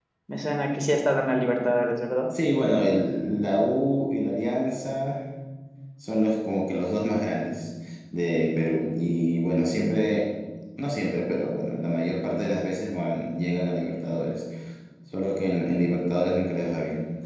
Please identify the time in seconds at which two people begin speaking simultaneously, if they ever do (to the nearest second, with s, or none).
none